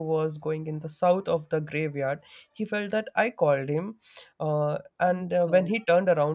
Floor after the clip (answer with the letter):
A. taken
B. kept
B